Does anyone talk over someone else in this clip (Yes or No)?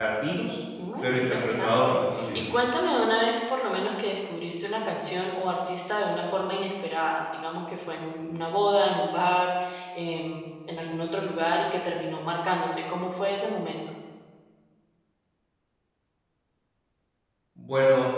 Yes